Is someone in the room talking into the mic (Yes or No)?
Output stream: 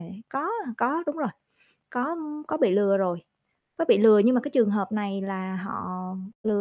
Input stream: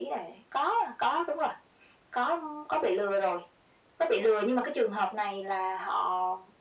No